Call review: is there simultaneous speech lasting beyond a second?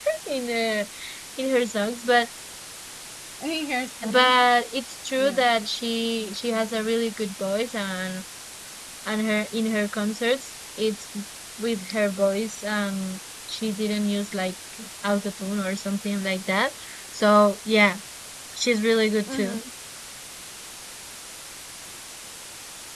No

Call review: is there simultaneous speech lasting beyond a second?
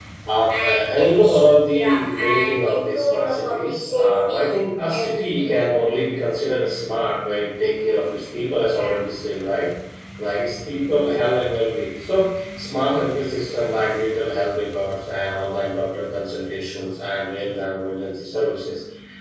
Yes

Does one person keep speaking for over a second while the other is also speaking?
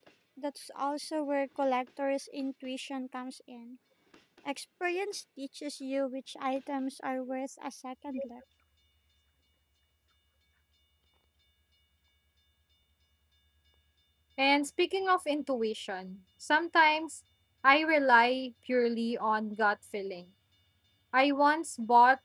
No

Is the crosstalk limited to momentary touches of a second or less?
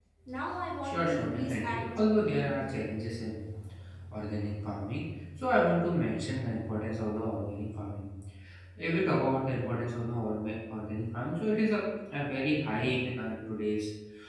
No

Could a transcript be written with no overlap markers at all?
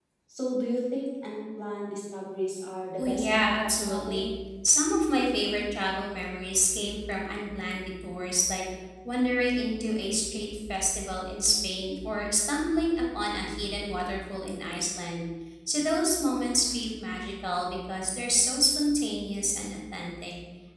No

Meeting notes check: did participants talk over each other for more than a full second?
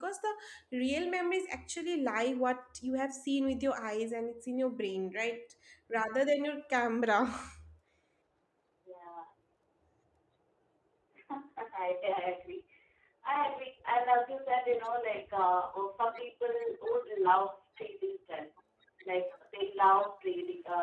No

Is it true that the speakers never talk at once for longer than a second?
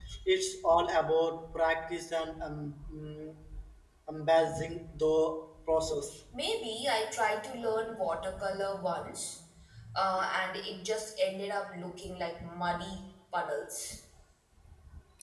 Yes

